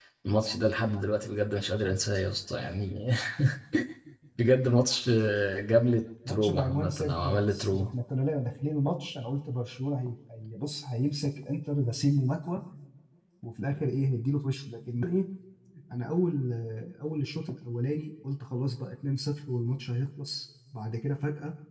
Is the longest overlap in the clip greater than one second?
Yes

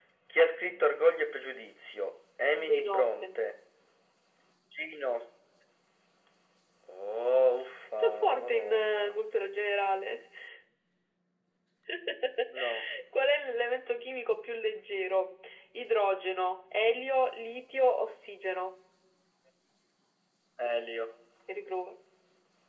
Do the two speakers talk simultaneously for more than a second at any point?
Yes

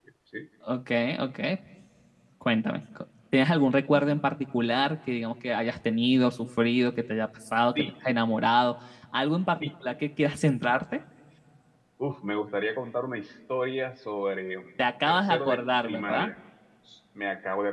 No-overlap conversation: No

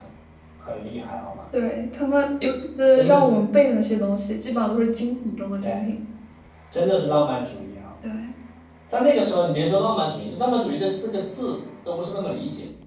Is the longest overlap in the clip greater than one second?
No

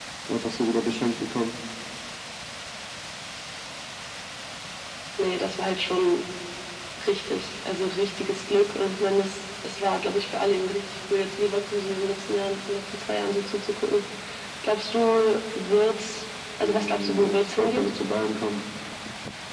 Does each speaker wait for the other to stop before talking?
No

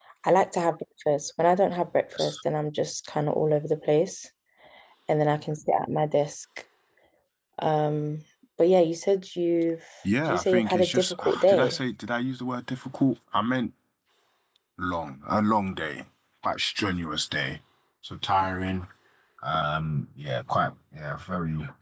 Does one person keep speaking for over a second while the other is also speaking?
Yes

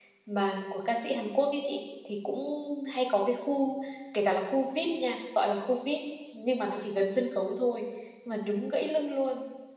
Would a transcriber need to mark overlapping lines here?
No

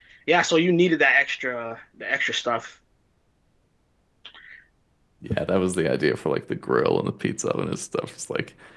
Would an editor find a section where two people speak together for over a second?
No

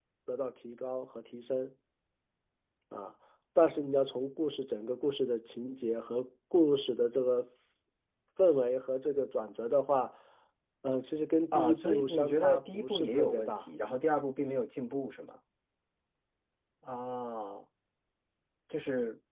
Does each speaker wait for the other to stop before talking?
No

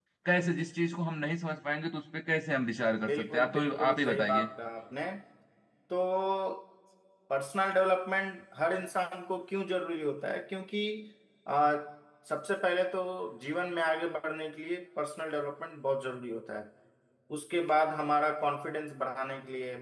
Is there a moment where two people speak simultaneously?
Yes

